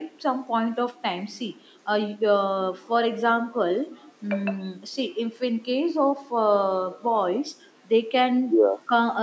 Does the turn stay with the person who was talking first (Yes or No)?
Yes